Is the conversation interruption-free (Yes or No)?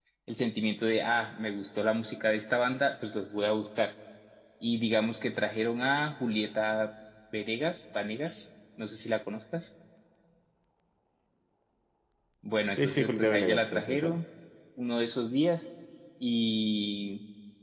No